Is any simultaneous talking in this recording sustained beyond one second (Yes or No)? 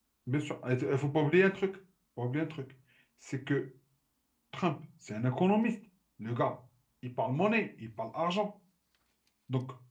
No